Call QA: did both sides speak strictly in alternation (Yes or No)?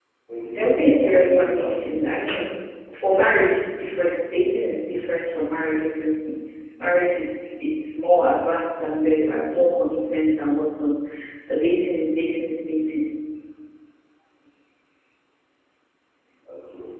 No